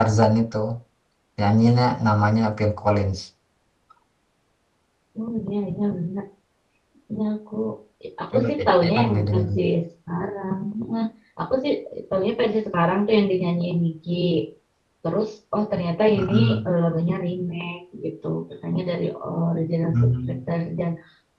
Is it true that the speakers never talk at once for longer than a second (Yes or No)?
No